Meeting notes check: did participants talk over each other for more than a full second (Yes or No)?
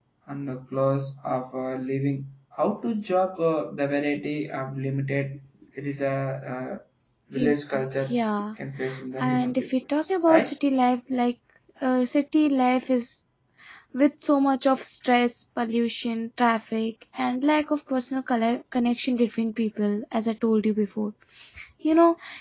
Yes